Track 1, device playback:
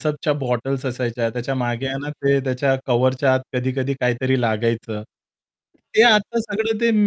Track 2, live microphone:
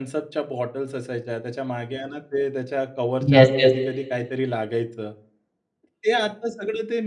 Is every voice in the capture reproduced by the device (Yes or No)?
No